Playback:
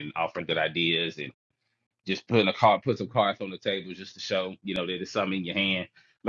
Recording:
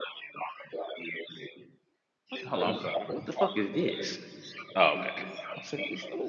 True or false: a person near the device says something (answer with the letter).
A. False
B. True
B